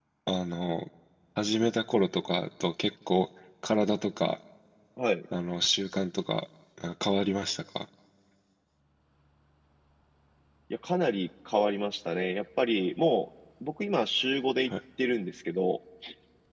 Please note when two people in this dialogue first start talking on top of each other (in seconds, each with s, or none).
none